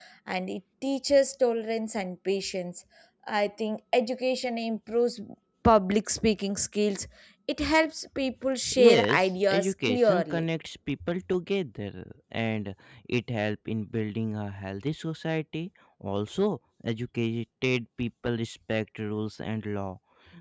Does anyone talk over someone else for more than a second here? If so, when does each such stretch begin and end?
8.8-10.4

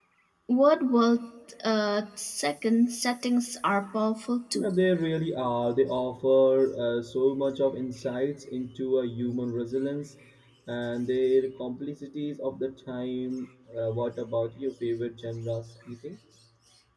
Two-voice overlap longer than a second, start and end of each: none

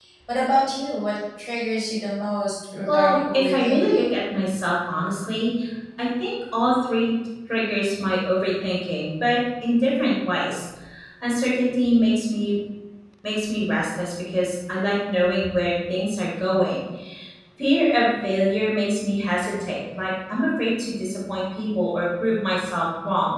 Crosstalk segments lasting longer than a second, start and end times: 2.9-4.1

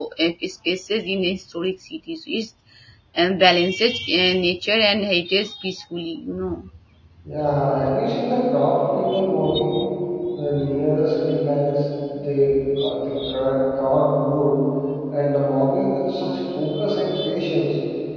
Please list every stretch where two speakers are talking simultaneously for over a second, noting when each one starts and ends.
none

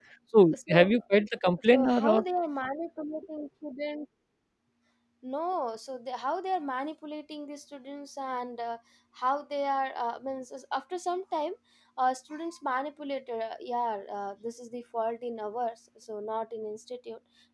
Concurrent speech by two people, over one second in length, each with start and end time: none

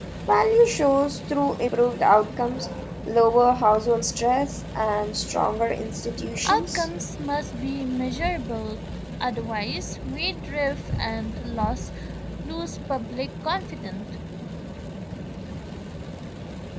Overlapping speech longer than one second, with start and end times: none

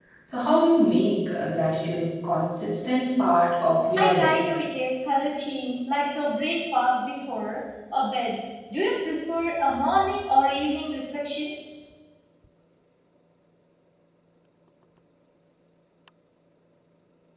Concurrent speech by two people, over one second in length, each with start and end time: none

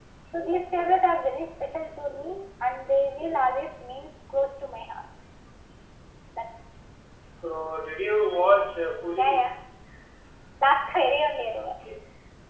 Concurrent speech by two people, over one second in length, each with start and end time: none

